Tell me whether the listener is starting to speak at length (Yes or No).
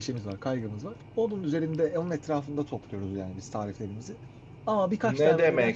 Yes